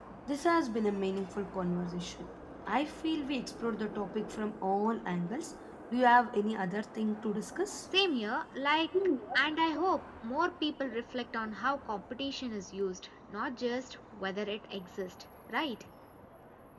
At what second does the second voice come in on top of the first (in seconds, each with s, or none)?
none